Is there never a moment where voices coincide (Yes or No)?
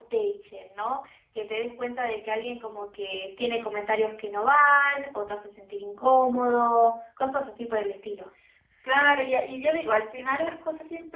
Yes